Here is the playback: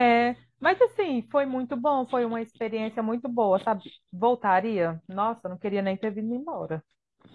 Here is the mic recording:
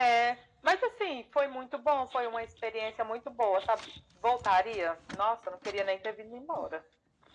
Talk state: echo only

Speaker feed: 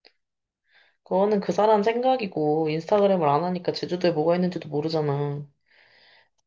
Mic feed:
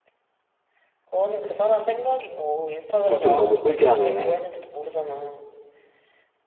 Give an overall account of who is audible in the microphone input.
both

